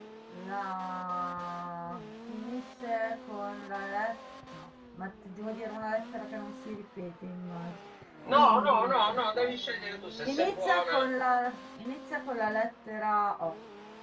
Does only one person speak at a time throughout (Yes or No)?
No